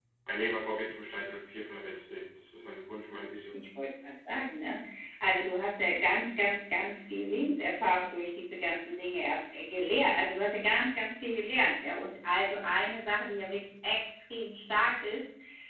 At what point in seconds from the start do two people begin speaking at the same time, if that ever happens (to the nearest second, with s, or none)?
none